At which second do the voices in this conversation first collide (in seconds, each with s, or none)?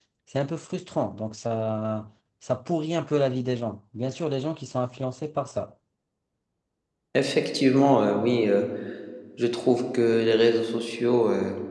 none